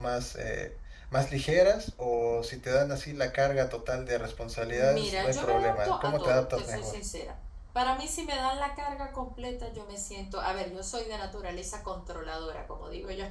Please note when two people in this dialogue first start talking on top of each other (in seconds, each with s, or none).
4.7 s